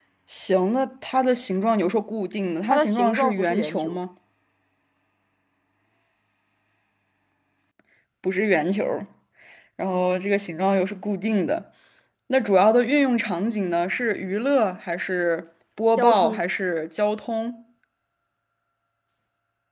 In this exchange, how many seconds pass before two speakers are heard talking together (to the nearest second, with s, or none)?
3 s